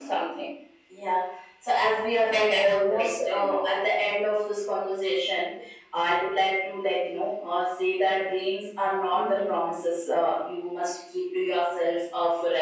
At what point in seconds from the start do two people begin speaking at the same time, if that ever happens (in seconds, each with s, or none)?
2.3 s